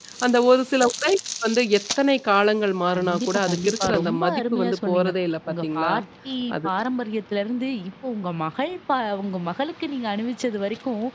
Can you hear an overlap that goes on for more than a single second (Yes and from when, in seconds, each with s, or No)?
Yes, from 2.9 s